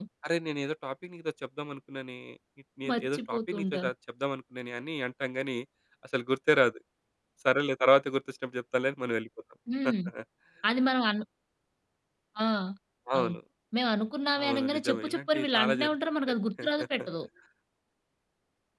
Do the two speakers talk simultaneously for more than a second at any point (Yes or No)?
Yes